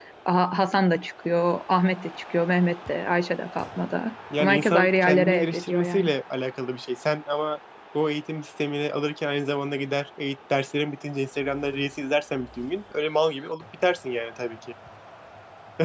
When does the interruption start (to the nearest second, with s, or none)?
4 s